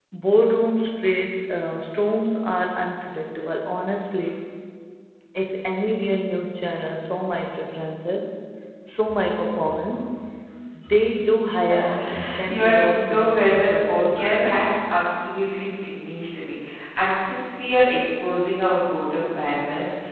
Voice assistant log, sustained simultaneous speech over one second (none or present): present